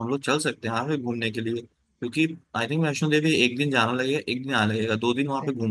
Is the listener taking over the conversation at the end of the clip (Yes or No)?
Yes